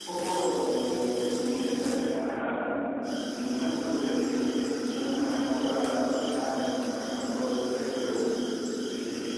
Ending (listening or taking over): listening